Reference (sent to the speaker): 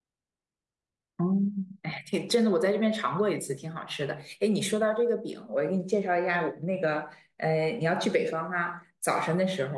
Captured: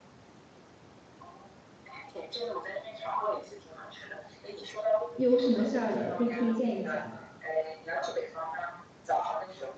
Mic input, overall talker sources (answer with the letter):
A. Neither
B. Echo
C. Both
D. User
C